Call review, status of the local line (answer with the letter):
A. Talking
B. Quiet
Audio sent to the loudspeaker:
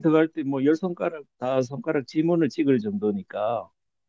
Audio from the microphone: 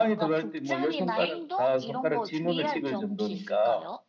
A